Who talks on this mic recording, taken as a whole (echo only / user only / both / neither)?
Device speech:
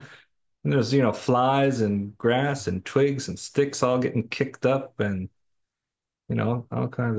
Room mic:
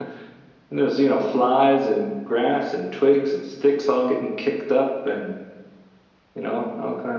echo only